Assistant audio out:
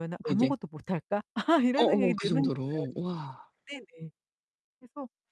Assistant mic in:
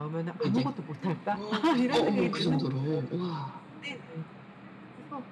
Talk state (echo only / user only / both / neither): both